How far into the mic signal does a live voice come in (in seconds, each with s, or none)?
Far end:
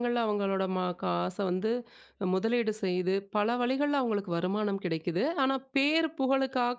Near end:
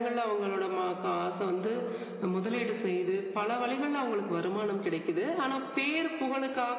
none